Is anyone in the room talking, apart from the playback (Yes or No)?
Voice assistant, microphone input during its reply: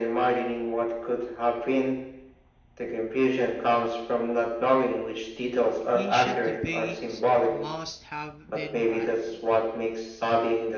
Yes